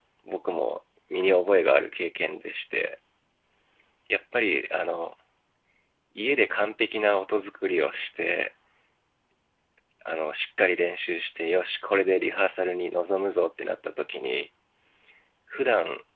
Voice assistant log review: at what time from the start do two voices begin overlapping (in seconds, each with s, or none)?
none